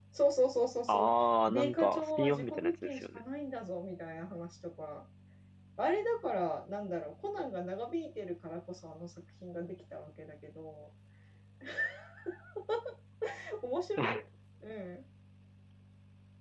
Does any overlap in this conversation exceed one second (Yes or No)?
Yes